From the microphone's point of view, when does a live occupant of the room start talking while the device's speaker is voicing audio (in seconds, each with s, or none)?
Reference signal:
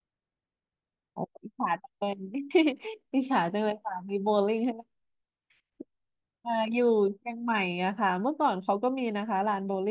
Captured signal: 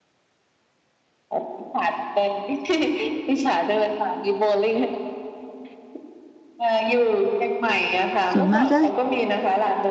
8.3 s